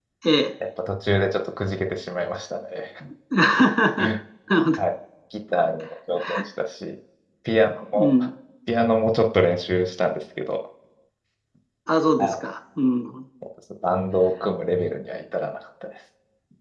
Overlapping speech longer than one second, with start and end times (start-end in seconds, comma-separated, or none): none